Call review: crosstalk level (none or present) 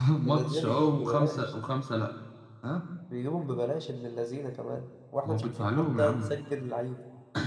present